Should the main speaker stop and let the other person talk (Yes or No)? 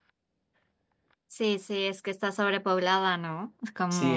Yes